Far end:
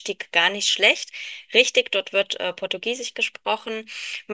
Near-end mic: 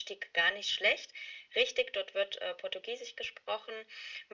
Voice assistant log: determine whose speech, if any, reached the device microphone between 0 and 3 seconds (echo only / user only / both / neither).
echo only